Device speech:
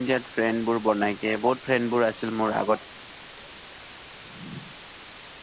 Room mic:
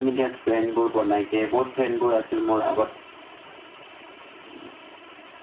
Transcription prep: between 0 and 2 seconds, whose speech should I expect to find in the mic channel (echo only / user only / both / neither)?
echo only